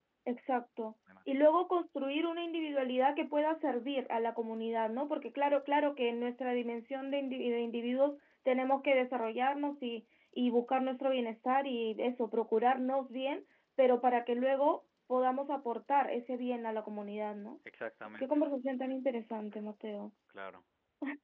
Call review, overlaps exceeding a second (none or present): none